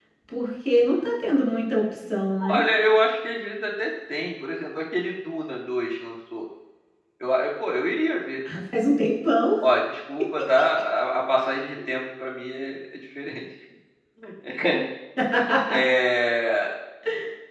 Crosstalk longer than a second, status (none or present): none